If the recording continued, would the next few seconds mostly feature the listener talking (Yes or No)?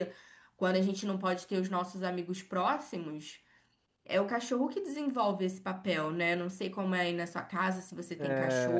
Yes